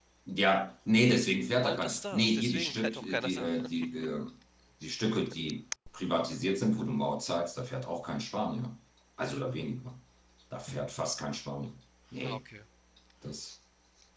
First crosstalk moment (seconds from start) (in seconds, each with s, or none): 1.5 s